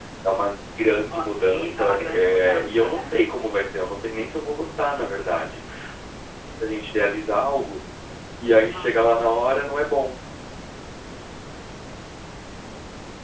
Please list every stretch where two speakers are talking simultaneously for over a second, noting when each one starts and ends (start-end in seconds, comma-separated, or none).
1.1-3.2